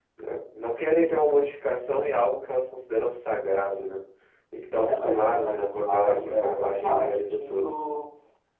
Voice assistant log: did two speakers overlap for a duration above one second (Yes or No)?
Yes